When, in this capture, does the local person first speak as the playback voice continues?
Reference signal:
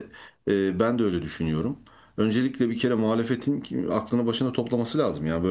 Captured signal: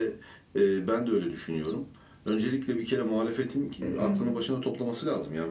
3.8 s

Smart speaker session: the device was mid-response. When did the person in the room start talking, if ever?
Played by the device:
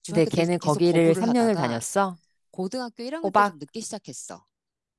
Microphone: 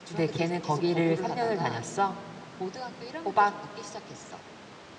none

